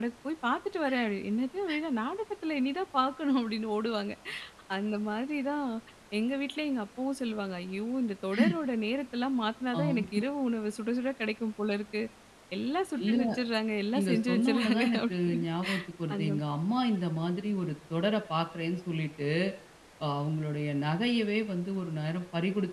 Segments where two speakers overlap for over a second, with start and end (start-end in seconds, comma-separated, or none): 14.0-15.4